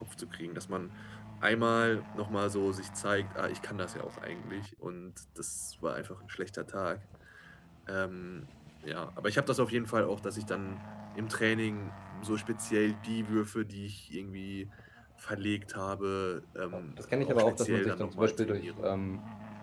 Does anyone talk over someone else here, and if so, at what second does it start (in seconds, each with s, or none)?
16.7 s